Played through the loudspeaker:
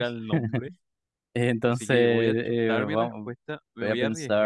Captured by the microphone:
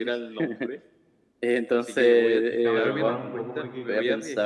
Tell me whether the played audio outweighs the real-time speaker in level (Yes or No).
Yes